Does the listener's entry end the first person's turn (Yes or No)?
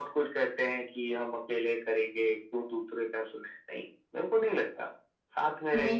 Yes